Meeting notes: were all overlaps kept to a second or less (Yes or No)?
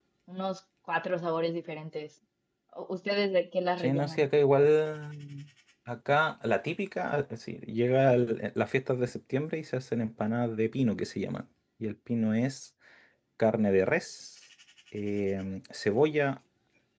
Yes